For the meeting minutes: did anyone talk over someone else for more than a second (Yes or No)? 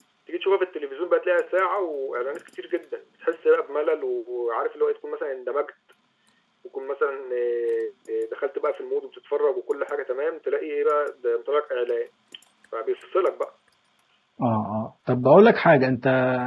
No